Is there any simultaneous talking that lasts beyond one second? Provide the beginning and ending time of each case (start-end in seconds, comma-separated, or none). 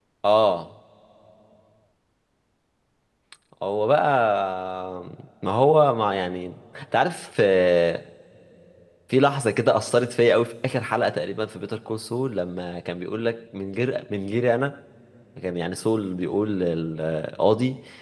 none